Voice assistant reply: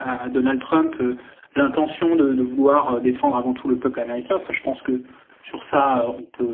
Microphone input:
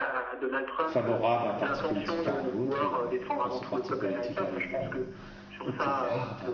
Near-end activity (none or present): present